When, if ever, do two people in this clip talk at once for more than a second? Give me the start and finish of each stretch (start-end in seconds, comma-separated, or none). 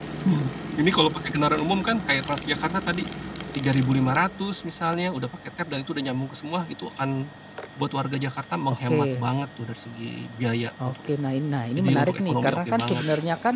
11.8-13.0